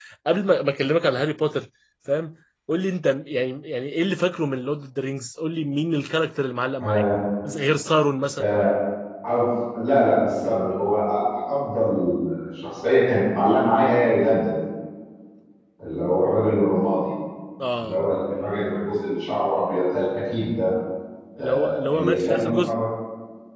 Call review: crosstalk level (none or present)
present